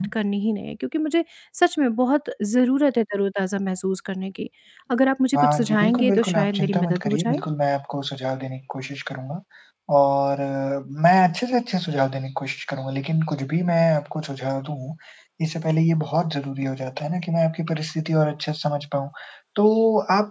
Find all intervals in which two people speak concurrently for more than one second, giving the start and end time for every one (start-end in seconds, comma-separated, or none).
5.4-7.4